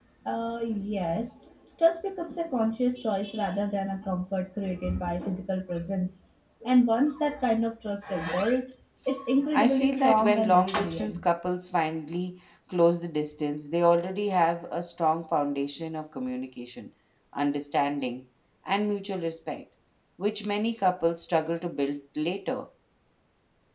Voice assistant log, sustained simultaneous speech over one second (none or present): present